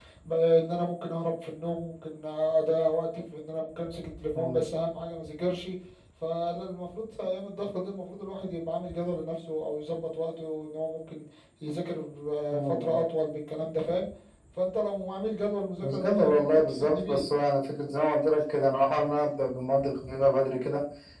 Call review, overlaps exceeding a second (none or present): present